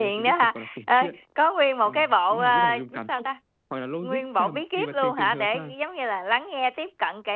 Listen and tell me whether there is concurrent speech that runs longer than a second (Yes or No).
Yes